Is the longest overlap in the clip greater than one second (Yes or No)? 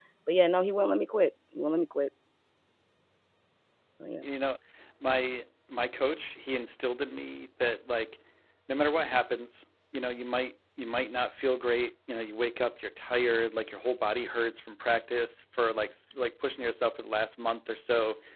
No